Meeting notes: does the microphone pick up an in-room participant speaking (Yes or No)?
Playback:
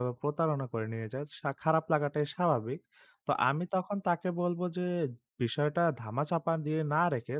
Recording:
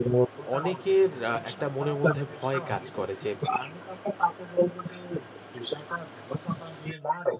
Yes